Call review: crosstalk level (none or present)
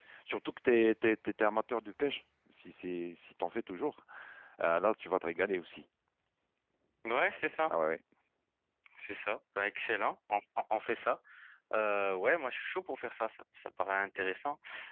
none